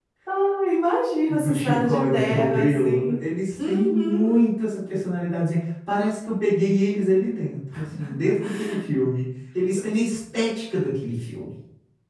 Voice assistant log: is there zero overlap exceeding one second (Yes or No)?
No